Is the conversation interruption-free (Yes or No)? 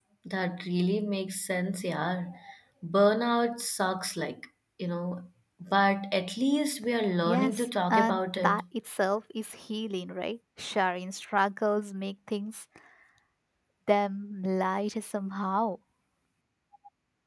No